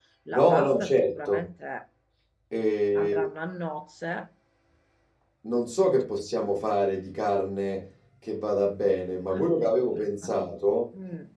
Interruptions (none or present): present